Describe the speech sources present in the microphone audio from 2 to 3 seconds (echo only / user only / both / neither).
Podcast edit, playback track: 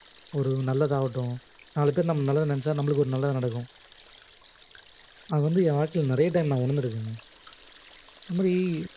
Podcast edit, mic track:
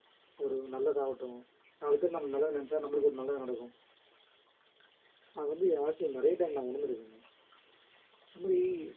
echo only